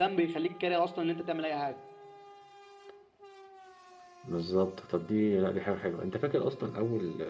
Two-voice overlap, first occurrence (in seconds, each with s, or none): none